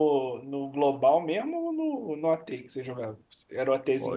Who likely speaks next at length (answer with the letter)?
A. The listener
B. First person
A